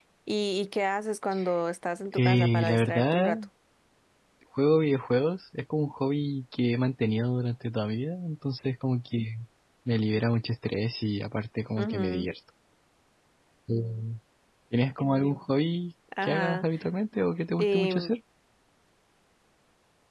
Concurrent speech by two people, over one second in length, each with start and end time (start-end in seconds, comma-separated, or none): 2.1-3.4